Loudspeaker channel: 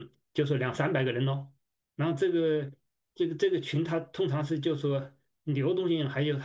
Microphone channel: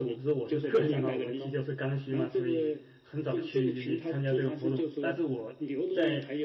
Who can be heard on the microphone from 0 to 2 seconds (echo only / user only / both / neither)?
both